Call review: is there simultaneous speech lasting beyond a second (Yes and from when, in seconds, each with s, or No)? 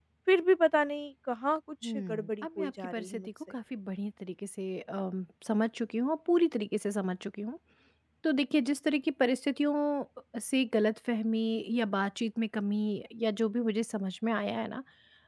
Yes, from 1.8 s